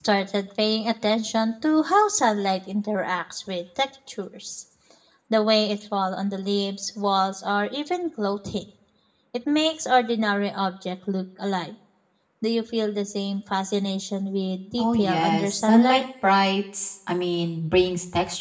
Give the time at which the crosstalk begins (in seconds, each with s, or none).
14.8 s